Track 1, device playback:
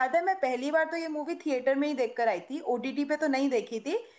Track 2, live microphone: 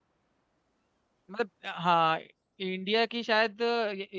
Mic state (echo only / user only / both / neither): user only